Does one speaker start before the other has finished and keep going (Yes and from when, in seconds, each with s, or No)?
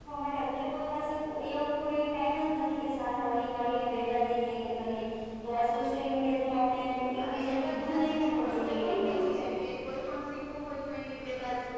Yes, from 7.2 s